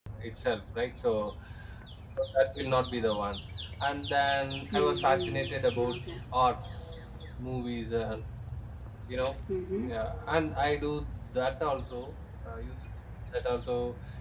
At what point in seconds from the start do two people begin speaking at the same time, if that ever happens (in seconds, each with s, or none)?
4.7 s